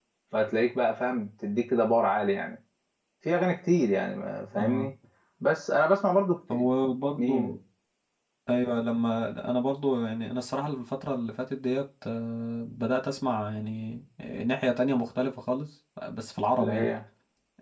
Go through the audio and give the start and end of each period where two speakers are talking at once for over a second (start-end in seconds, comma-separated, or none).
none